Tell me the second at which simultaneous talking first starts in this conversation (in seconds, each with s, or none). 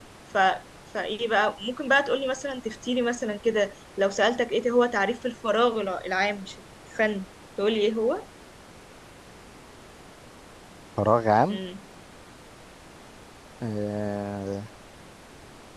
none